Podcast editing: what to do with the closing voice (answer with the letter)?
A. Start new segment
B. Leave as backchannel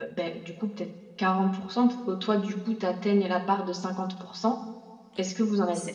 A